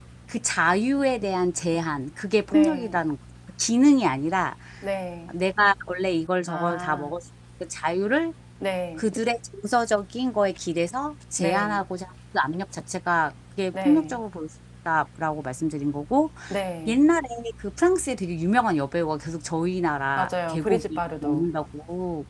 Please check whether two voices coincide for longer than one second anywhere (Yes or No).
Yes